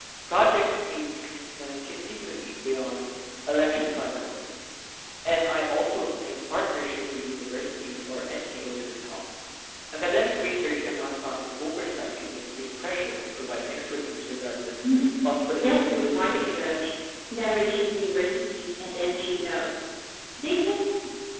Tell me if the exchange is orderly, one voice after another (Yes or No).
No